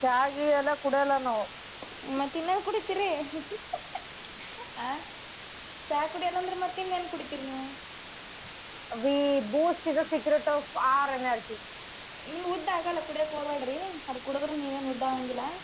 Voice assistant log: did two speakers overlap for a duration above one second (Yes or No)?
No